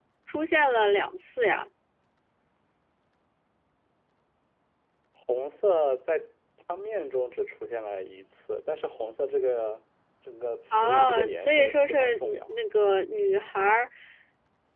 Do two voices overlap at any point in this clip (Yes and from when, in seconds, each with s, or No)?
Yes, from 10.7 s